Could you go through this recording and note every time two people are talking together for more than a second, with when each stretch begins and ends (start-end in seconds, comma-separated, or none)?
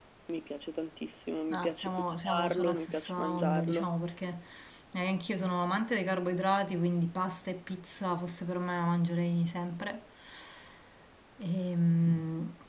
1.5-3.9